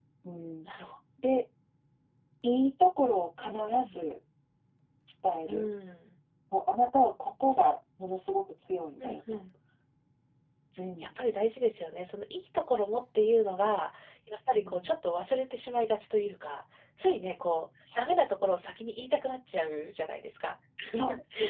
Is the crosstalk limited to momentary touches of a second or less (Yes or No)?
Yes